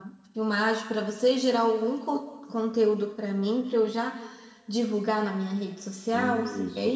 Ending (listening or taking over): taking over